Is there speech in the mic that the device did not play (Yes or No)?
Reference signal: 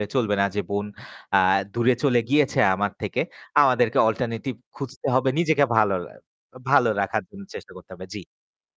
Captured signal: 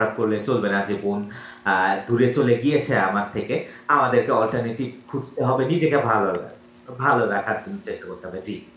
No